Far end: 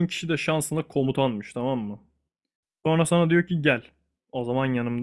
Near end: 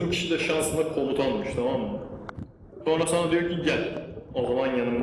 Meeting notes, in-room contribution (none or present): none